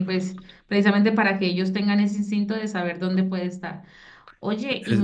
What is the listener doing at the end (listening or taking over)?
listening